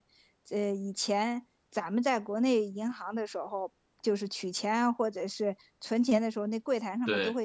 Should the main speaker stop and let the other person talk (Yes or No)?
No